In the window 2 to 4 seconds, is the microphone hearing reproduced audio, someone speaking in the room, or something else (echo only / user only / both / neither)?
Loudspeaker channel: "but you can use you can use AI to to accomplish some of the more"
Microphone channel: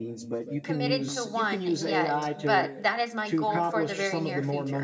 both